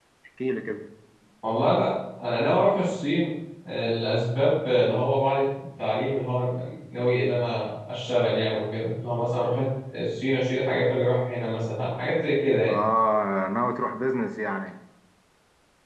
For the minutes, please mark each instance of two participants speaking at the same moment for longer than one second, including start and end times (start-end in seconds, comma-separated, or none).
none